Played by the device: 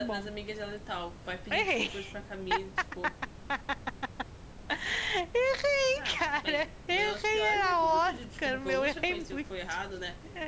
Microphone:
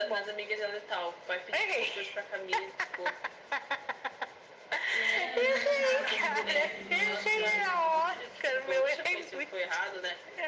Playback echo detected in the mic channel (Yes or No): Yes